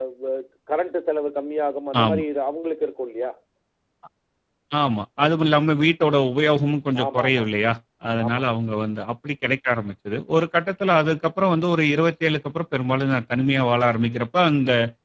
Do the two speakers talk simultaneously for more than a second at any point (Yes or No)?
No